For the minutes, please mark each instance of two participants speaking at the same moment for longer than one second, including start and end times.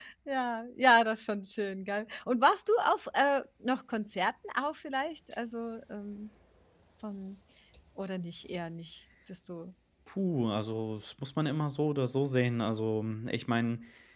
none

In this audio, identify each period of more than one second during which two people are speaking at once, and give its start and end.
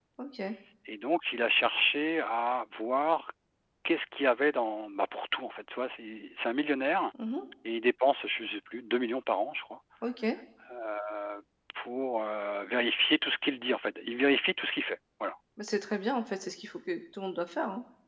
none

